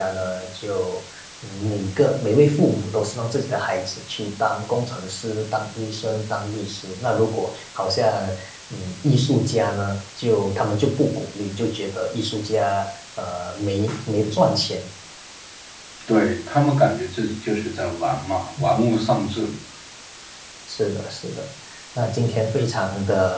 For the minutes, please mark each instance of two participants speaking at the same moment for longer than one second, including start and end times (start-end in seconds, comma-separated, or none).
none